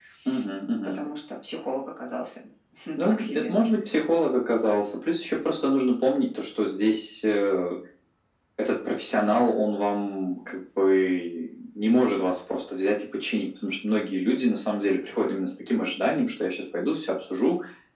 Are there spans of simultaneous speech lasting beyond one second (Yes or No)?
No